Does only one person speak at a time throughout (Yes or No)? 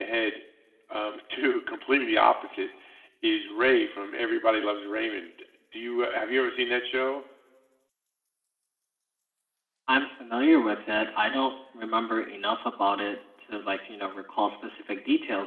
Yes